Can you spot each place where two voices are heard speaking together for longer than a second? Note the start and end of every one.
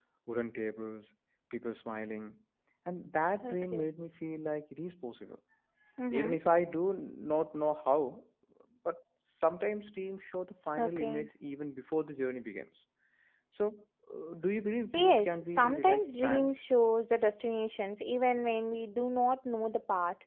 14.9-16.5

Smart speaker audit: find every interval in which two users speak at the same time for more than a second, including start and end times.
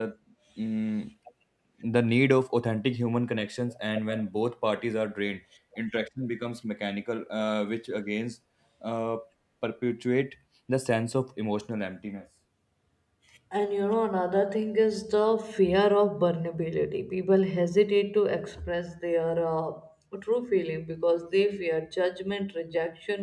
none

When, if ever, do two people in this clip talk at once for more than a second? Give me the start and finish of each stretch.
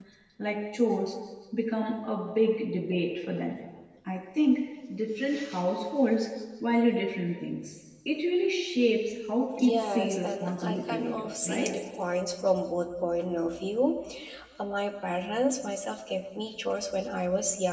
9.7-11.8

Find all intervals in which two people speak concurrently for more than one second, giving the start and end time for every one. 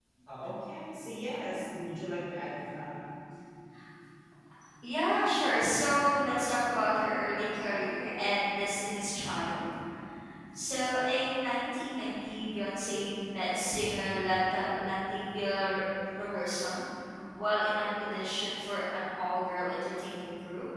none

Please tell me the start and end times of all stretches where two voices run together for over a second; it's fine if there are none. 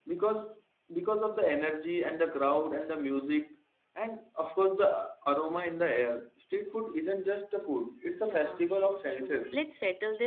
8.3-9.6

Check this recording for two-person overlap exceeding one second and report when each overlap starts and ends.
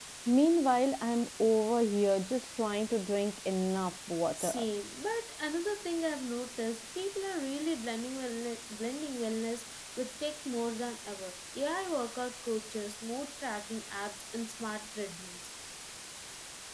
none

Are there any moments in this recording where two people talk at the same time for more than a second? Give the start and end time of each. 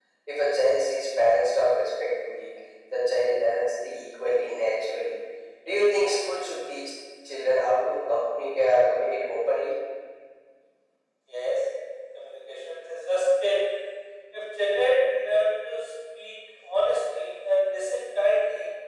none

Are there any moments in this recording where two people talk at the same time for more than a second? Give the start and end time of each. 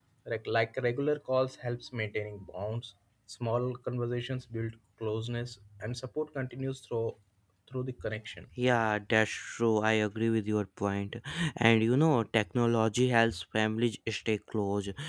none

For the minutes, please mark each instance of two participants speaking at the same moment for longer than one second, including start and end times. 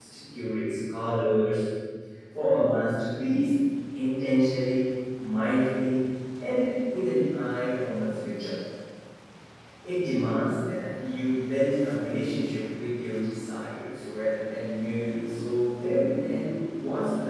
none

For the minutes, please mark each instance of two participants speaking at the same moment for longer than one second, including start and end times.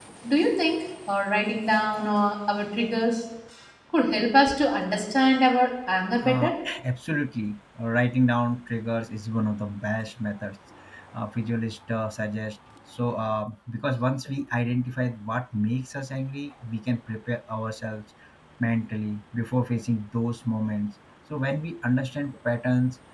none

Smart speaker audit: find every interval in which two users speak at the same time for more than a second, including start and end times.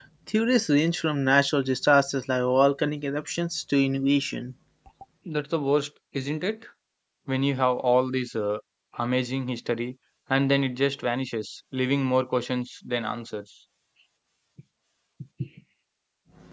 none

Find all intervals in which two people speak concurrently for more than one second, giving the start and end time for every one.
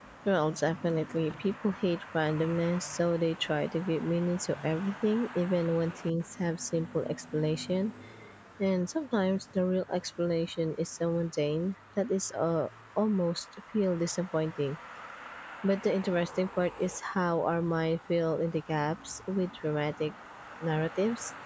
none

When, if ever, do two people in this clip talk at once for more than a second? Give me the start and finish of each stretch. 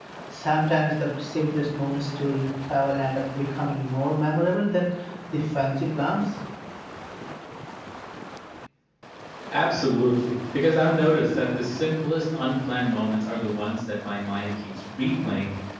none

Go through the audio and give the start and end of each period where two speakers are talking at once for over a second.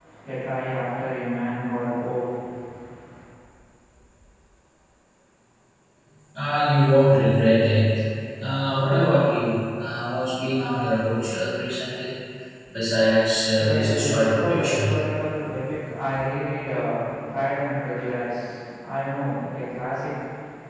13.6-14.9

